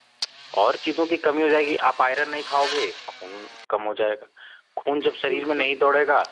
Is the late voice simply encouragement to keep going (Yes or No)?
Yes